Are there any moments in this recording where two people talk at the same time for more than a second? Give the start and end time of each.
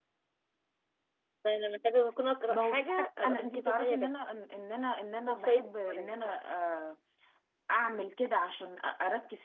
2.5-4.1

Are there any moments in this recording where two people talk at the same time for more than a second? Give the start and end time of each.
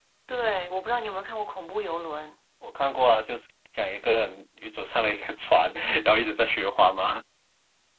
none

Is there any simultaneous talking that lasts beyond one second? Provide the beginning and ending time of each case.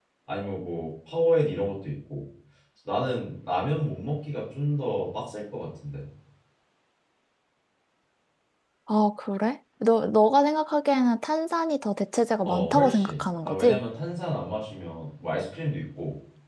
12.4-13.8

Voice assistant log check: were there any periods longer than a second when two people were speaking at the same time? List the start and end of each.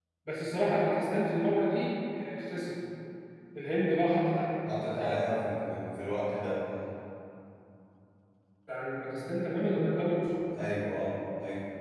none

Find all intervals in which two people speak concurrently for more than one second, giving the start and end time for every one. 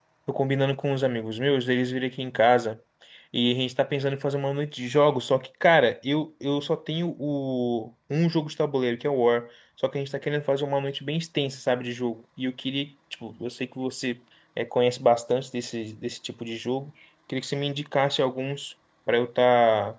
none

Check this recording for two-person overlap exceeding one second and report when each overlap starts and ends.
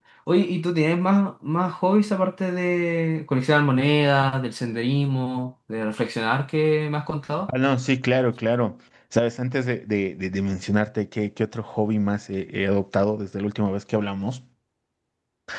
none

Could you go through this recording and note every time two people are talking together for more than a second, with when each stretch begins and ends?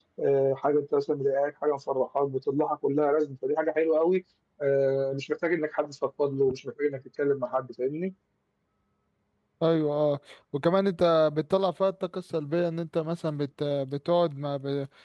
none

